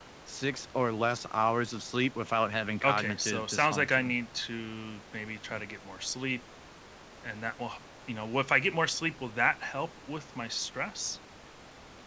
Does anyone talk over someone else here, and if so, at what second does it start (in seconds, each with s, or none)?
2.8 s